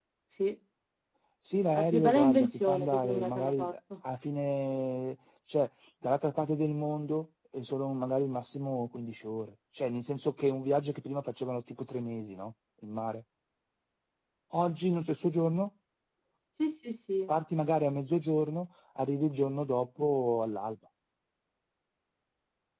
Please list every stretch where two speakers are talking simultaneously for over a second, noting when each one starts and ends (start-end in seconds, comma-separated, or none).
1.7-3.7